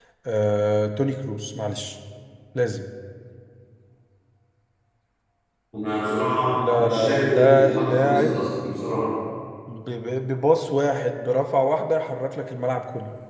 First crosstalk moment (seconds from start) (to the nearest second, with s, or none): 7 s